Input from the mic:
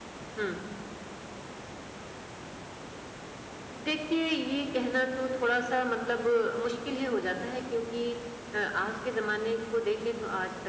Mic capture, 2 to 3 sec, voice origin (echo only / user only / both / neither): neither